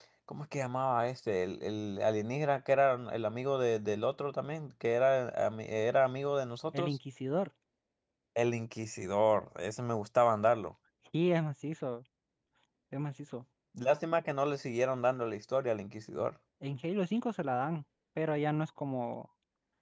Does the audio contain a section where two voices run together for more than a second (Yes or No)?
No